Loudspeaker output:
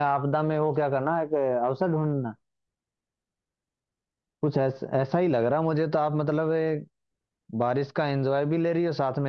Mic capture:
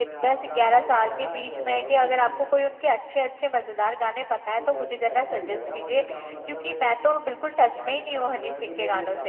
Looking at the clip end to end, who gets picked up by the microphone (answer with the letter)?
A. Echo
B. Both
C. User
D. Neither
B